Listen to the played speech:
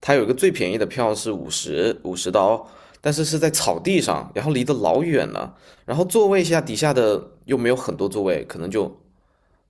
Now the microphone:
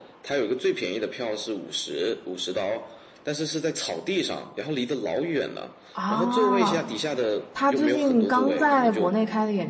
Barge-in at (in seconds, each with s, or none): 5.9 s